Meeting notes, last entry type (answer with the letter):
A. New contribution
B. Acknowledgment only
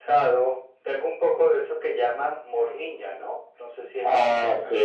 A